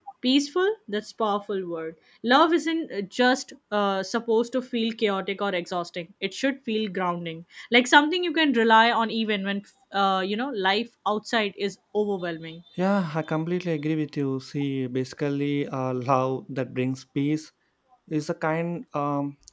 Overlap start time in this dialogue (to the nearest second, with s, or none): none